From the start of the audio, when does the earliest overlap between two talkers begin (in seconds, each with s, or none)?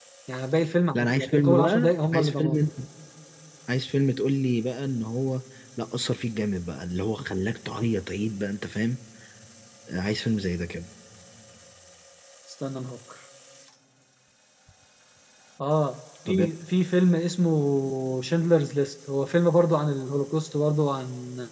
0.9 s